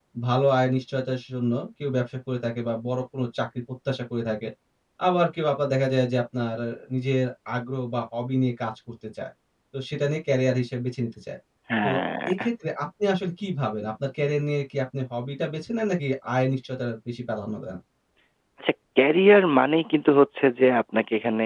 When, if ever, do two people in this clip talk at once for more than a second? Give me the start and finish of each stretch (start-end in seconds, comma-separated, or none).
none